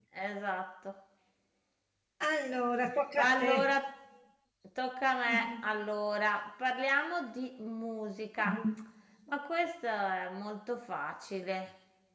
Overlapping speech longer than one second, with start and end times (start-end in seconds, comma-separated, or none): none